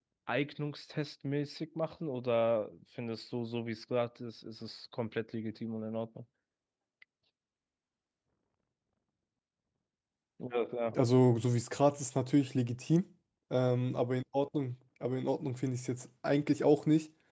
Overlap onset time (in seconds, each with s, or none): none